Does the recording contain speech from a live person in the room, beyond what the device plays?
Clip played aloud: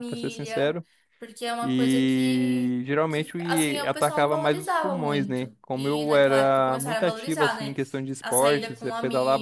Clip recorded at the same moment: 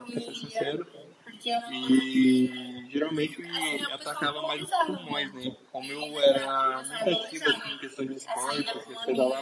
No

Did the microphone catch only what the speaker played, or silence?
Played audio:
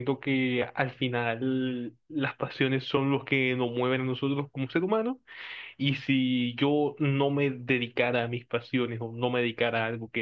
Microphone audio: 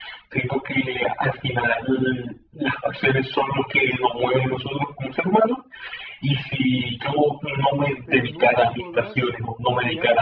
No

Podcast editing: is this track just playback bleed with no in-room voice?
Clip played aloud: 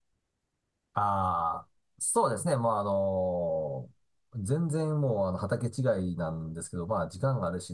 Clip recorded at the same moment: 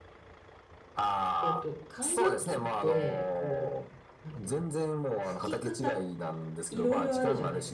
No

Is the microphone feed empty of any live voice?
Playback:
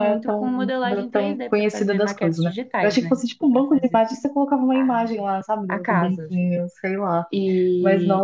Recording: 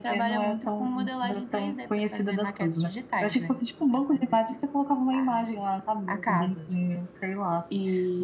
Yes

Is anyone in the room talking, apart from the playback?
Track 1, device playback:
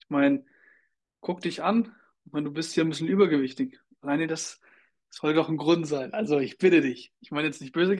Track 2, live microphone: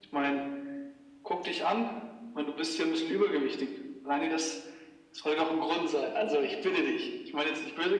No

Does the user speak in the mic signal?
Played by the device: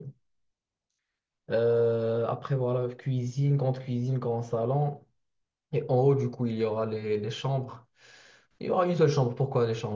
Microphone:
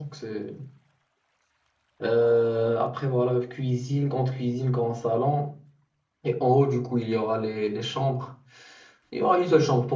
No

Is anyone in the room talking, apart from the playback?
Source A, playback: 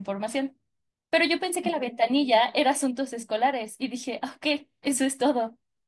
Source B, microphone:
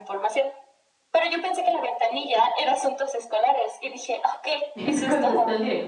Yes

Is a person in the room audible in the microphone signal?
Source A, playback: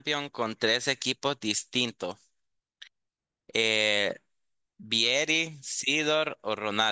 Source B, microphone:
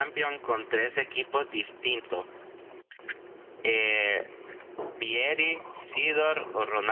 No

